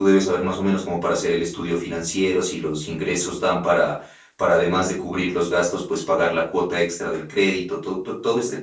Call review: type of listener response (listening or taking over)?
taking over